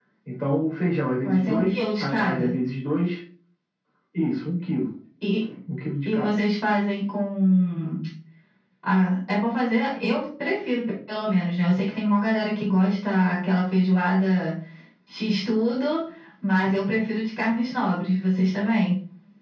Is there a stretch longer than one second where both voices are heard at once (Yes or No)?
Yes